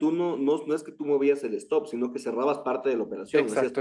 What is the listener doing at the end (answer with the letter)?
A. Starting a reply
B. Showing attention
A